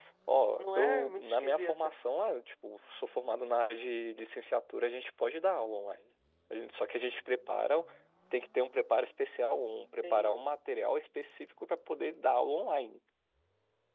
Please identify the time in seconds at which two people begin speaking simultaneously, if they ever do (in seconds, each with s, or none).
0.6 s